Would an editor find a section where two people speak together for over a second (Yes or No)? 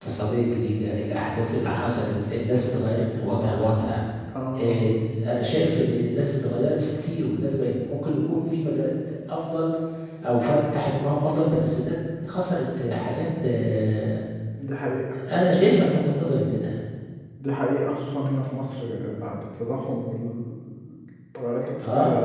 No